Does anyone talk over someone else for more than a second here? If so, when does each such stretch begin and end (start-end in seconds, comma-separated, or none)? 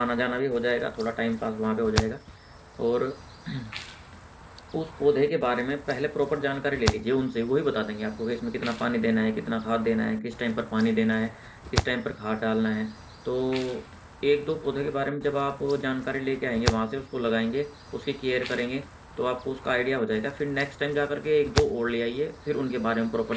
none